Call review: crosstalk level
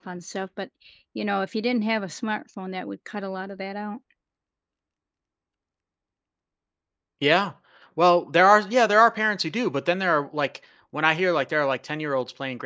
none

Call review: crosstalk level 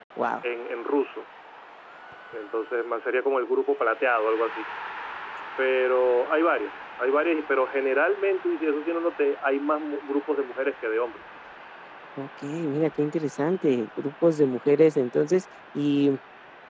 none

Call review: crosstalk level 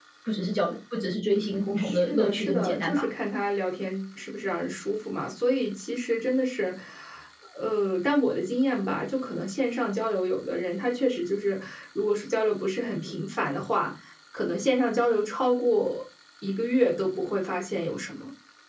present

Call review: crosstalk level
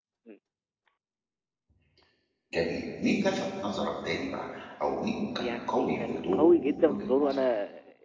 present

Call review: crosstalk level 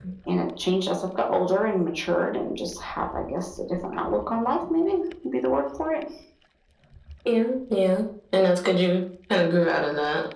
none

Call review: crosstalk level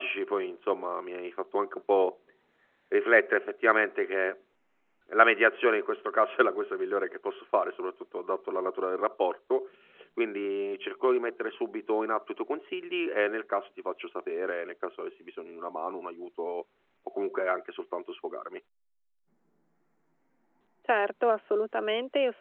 none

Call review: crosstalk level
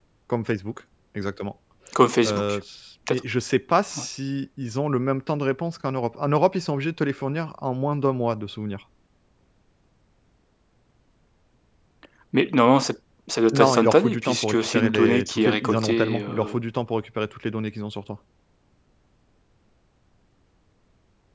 present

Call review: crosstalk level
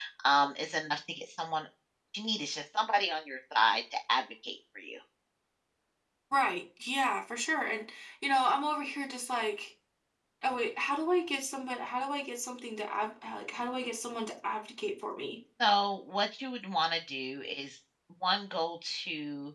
none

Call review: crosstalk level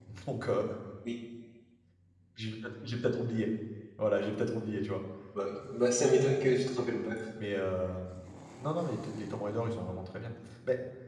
none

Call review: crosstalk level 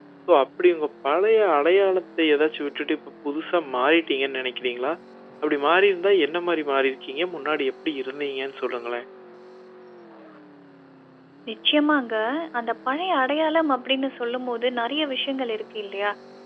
none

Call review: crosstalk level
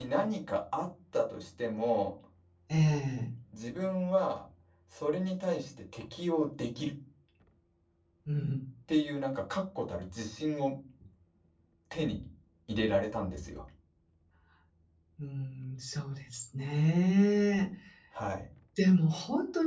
none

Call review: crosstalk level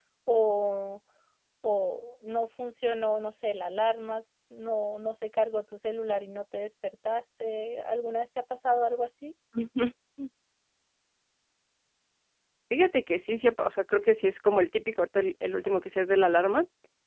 none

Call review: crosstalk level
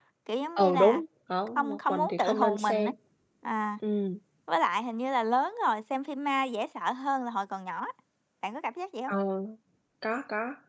present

